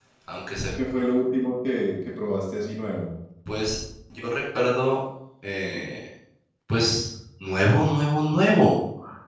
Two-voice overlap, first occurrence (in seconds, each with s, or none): none